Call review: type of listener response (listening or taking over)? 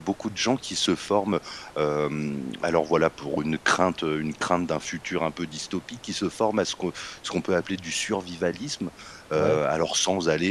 listening